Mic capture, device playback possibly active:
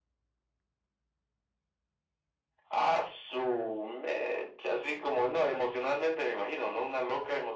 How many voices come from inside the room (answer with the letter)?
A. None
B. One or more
A